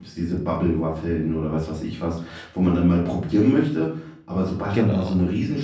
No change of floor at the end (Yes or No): Yes